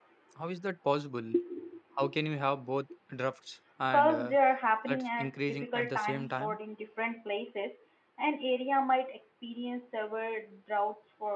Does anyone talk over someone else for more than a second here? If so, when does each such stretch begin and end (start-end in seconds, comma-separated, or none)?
4.9-6.6